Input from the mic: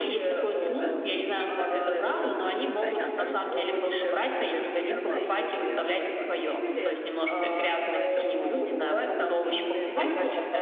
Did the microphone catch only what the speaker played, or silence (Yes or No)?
No